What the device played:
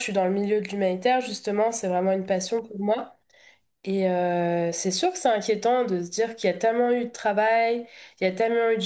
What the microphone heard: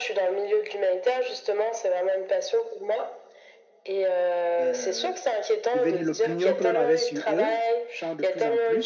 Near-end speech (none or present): present